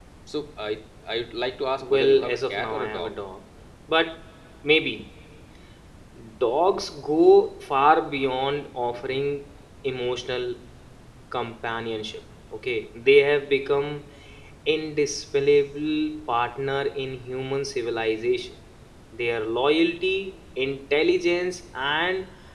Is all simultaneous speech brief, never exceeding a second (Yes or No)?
No